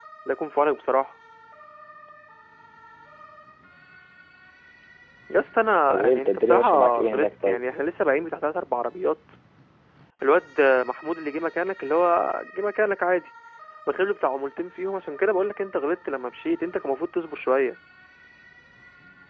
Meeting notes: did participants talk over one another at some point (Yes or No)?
Yes